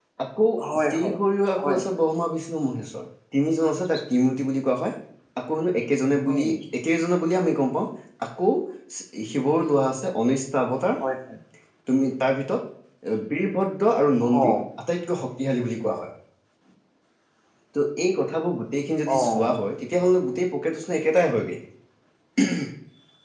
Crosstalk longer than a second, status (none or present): none